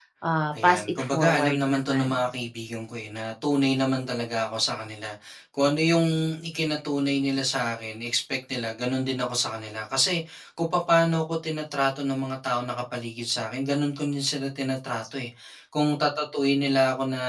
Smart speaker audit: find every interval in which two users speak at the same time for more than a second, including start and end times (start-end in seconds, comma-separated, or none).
0.6-2.1